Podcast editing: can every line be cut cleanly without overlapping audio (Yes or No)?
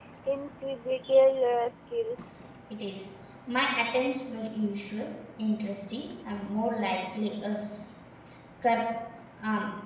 Yes